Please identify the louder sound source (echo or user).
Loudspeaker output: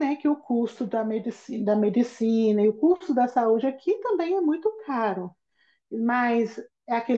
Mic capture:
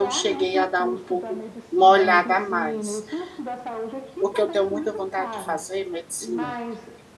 user